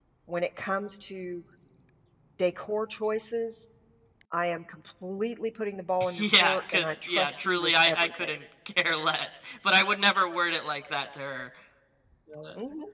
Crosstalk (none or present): present